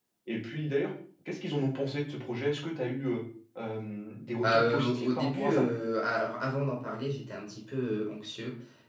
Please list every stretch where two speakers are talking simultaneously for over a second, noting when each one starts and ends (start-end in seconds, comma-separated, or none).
4.4-5.6